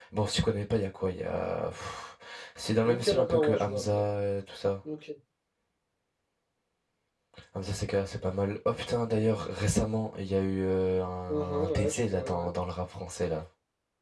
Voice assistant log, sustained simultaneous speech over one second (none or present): present